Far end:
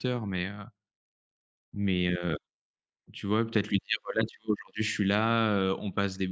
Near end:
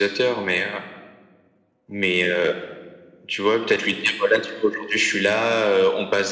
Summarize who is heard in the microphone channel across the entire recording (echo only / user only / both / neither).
echo only